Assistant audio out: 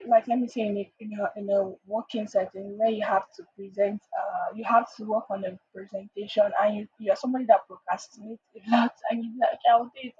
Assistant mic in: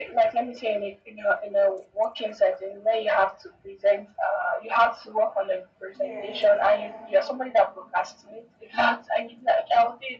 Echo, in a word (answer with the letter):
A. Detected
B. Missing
A